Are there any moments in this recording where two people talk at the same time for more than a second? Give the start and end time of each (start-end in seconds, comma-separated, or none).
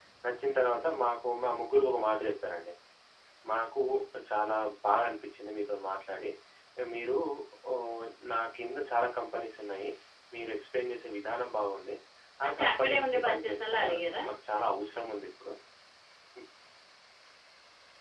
12.4-13.9